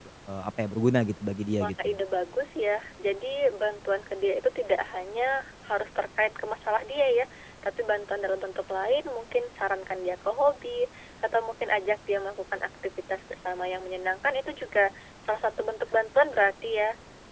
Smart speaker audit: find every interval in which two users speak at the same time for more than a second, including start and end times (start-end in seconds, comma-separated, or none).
none